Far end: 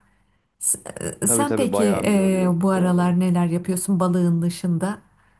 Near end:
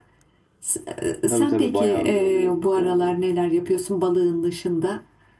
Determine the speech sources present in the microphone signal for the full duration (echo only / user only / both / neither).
echo only